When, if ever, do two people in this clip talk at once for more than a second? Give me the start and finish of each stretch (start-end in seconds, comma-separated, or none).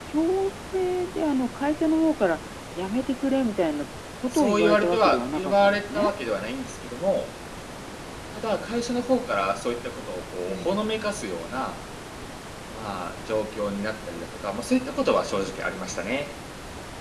4.3-6.1